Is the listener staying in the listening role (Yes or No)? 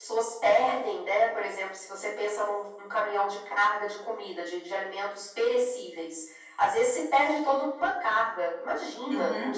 No